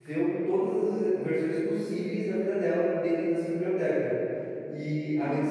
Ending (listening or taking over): listening